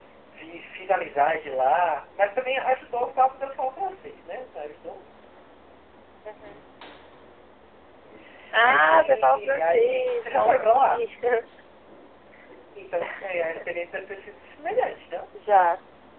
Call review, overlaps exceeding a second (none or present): present